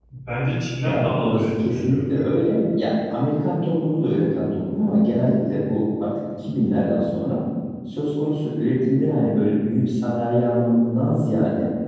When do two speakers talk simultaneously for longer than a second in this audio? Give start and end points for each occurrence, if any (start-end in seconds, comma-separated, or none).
0.8-2.2